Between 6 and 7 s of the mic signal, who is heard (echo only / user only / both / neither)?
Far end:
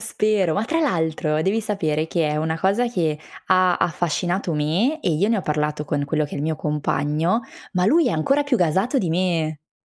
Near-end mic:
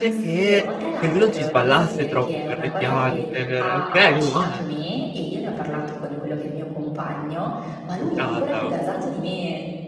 echo only